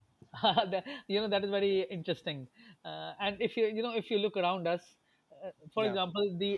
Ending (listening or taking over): listening